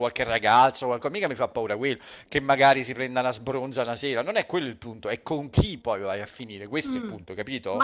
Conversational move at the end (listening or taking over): taking over